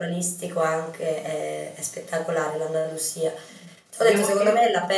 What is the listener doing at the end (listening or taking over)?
listening